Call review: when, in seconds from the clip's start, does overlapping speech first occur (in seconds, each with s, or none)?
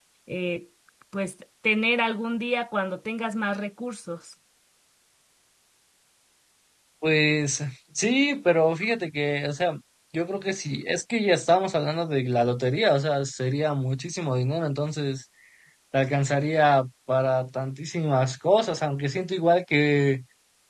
none